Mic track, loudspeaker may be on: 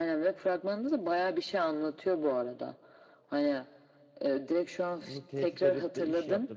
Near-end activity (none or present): present